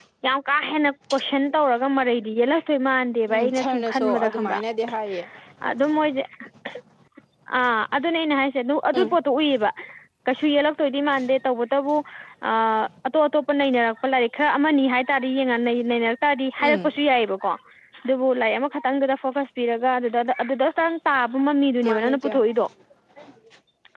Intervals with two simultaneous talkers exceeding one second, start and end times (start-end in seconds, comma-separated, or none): 3.3-4.6